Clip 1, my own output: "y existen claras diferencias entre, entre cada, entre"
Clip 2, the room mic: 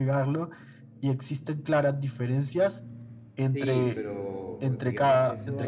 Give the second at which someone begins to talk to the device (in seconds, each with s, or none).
3.5 s